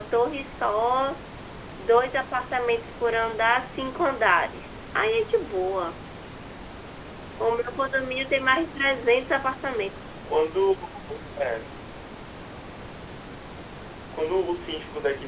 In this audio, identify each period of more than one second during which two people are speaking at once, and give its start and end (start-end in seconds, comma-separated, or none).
none